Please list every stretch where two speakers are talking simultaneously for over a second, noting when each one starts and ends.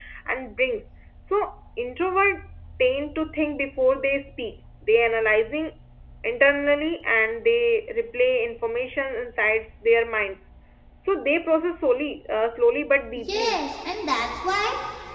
none

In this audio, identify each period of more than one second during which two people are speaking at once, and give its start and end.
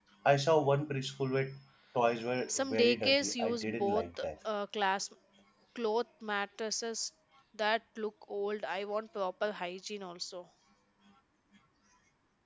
2.5-4.0

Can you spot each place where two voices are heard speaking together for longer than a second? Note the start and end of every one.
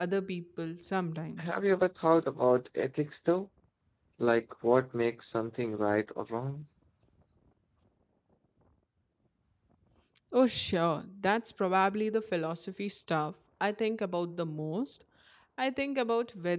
none

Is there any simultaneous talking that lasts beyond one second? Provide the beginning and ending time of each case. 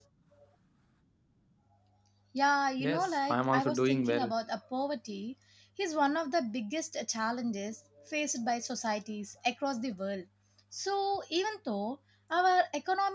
2.8-4.3

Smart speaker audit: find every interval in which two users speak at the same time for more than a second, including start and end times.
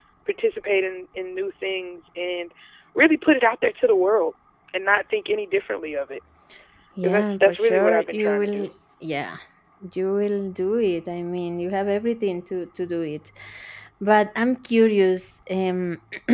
7.0-8.7

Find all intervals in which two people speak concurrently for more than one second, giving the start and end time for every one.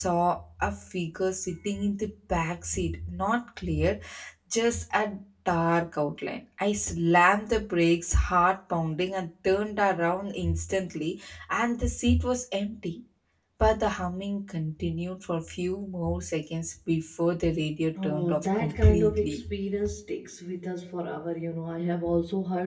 18.0-19.4

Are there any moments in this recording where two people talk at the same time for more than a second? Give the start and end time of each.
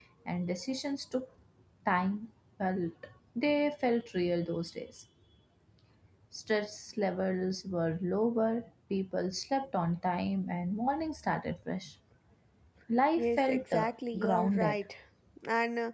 13.2-14.8

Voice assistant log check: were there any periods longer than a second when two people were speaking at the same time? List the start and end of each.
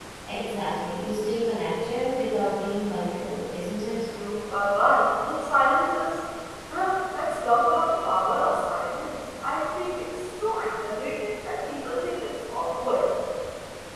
none

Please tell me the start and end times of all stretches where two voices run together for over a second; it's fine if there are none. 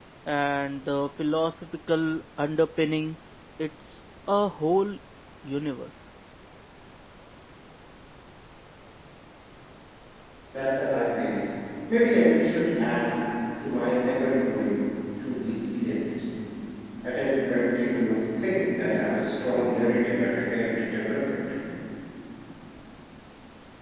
none

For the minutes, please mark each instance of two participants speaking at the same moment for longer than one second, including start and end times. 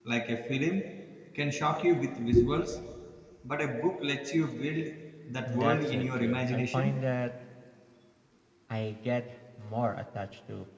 5.4-7.0

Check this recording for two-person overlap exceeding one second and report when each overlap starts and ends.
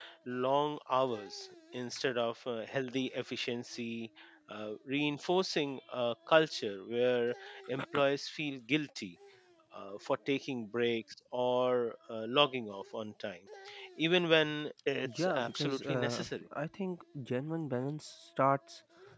15.0-16.5

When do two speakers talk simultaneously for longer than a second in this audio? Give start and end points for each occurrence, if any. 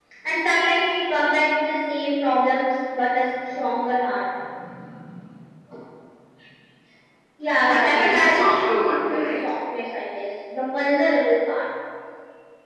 7.7-9.2

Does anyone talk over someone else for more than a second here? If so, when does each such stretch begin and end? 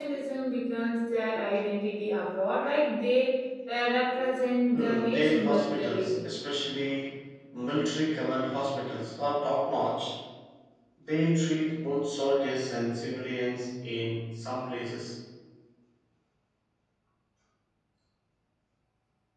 4.7-6.2

